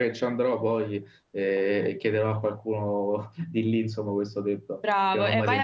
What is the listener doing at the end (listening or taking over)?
taking over